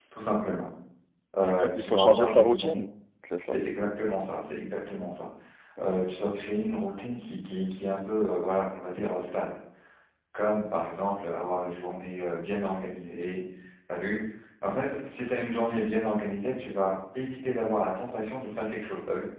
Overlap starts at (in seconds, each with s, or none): 1.4 s